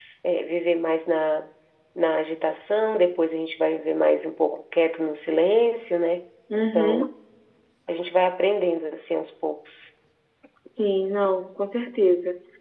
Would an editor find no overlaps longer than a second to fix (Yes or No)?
Yes